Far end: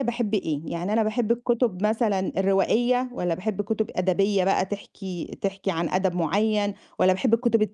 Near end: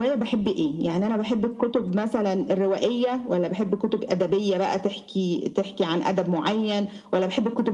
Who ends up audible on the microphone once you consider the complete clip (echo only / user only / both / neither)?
echo only